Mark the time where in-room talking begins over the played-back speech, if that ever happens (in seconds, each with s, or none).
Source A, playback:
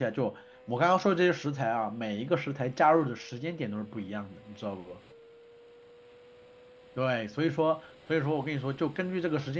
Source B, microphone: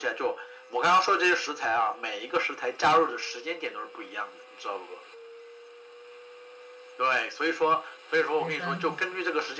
8.4 s